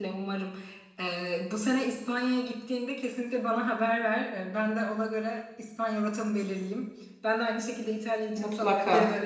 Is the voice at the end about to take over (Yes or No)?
No